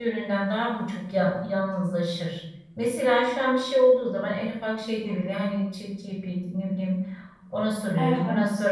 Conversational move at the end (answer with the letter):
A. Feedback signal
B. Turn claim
A